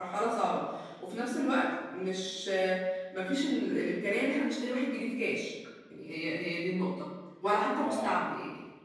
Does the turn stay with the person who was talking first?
Yes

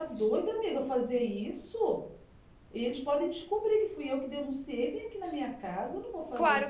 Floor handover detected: Yes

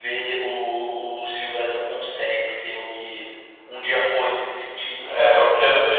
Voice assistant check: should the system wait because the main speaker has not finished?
No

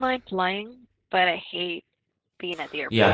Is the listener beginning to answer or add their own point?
Yes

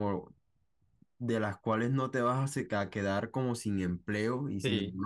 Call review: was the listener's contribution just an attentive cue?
Yes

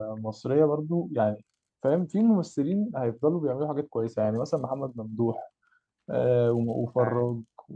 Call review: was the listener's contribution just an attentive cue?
Yes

